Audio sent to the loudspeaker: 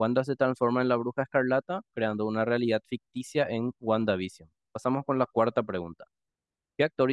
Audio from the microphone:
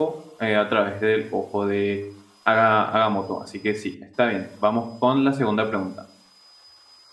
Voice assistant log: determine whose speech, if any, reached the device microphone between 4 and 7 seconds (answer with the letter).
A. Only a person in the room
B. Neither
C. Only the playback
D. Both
A